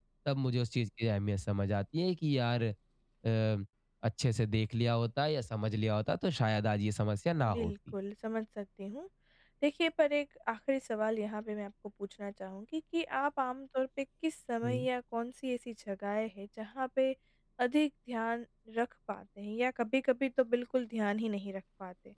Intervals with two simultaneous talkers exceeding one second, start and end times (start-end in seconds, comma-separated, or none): none